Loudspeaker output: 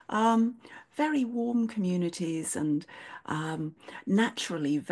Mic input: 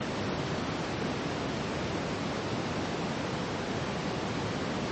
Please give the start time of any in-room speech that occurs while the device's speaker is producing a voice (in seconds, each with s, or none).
none